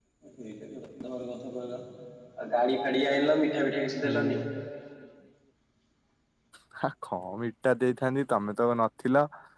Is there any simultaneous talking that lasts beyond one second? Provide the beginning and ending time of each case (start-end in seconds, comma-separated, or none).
none